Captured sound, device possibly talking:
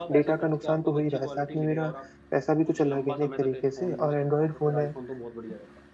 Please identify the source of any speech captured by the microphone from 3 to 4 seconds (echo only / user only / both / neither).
both